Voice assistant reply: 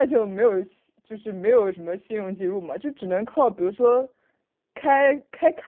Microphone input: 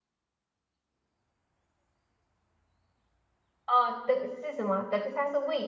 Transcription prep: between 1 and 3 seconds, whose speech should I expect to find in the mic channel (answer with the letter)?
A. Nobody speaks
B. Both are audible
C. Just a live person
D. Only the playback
A